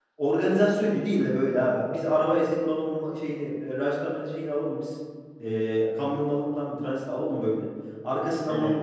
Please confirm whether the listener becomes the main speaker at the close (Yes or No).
No